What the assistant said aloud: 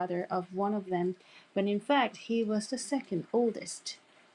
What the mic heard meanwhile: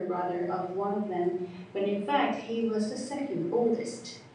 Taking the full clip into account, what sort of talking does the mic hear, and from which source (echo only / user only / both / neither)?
echo only